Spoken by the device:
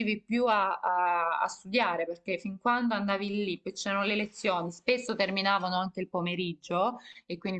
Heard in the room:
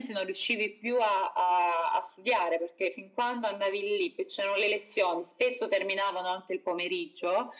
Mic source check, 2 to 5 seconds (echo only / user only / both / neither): echo only